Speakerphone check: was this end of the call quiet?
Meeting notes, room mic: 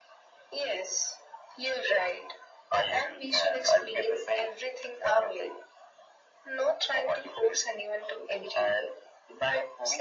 Yes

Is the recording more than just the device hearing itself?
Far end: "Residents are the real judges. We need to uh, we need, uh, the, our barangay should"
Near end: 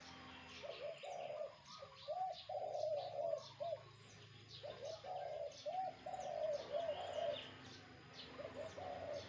No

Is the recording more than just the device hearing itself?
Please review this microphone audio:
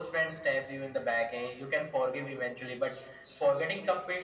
No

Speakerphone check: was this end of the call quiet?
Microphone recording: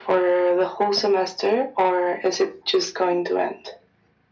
Yes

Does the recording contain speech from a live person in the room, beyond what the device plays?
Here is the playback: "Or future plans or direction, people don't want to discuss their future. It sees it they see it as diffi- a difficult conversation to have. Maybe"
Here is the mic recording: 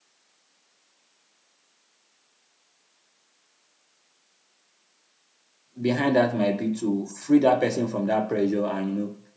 Yes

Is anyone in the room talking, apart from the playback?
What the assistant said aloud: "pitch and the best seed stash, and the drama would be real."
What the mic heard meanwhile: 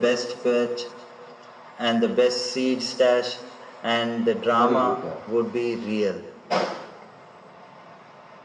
Yes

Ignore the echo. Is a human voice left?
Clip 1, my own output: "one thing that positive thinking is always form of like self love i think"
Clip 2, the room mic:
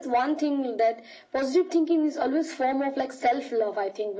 No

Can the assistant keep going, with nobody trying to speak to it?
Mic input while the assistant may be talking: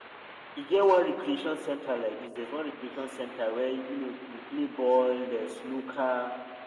Yes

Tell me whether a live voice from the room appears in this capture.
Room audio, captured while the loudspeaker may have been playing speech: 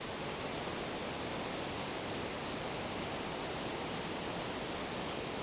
No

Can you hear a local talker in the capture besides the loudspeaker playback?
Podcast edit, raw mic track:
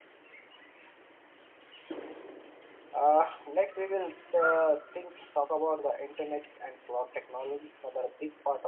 Yes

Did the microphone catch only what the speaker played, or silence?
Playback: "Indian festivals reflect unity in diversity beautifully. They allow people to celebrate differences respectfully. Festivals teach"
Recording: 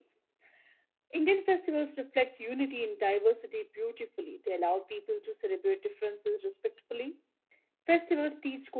Yes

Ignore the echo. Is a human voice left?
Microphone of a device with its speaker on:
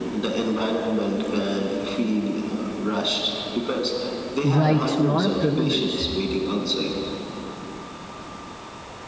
Yes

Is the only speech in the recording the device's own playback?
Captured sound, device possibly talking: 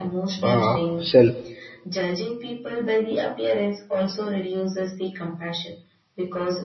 No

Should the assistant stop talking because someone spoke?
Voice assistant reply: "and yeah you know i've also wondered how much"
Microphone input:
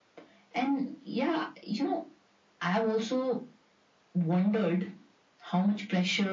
No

